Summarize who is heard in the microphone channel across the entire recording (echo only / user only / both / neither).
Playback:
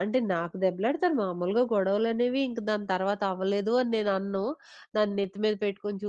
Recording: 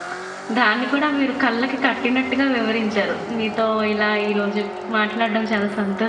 user only